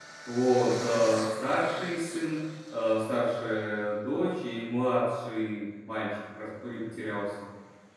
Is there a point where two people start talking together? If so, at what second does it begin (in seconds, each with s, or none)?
none